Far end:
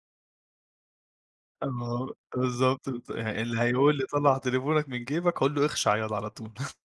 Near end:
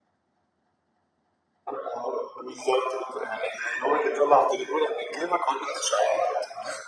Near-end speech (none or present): none